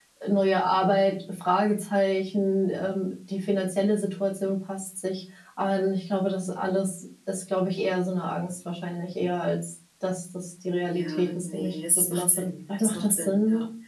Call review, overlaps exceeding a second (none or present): present